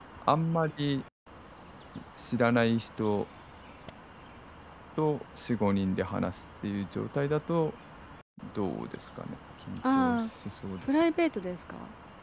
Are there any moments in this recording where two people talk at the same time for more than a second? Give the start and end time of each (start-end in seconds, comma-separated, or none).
none